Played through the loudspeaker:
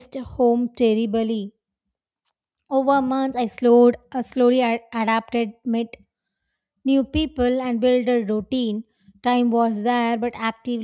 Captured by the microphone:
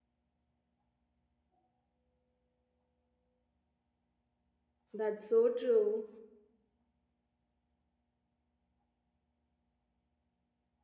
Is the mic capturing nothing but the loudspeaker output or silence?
No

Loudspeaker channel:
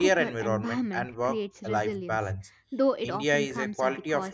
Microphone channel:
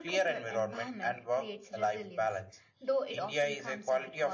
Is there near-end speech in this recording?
No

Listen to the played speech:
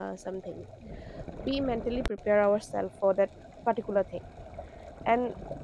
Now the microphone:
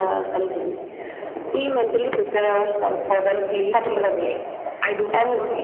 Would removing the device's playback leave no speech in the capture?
No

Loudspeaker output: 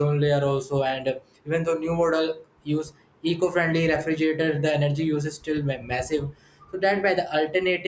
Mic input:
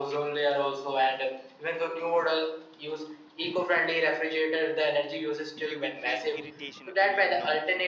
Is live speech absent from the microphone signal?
No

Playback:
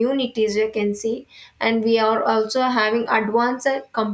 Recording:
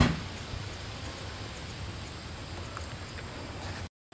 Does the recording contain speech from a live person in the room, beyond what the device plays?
No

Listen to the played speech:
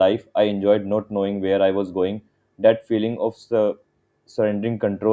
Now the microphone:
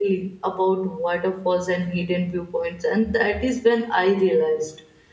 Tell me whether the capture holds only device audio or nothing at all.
No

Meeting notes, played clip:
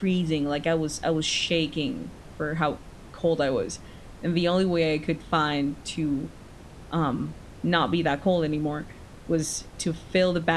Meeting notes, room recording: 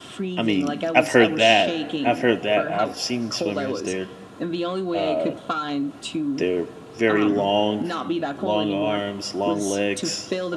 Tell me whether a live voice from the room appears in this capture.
Yes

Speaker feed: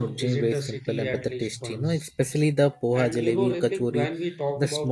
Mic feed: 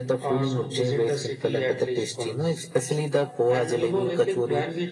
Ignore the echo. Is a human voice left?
No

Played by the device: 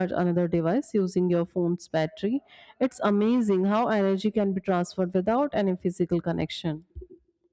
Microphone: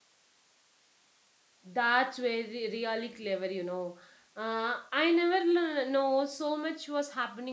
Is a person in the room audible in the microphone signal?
Yes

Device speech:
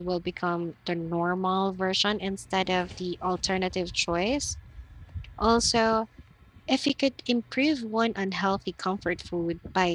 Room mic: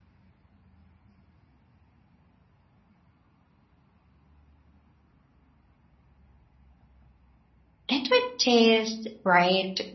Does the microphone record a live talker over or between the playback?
Yes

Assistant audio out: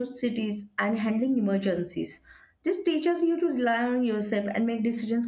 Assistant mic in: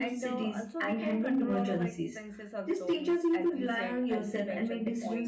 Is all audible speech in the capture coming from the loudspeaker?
No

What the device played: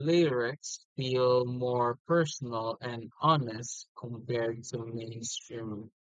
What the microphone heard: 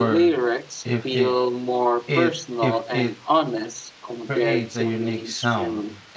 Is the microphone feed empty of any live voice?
No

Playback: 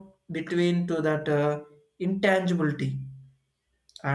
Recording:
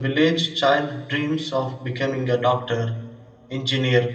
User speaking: Yes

